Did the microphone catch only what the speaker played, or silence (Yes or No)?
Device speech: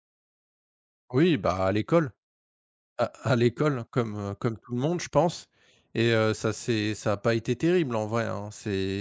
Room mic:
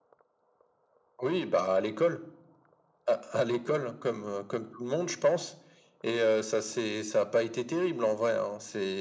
Yes